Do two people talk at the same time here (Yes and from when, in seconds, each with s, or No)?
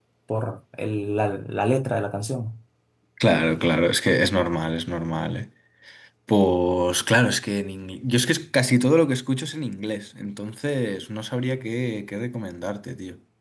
No